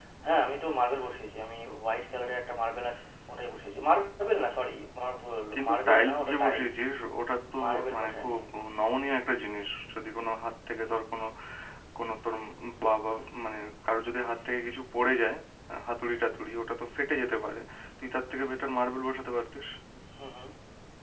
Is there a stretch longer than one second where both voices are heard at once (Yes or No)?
Yes